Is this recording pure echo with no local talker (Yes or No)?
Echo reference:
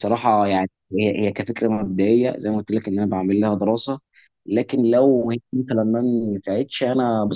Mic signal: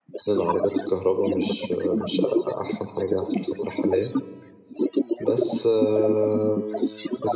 No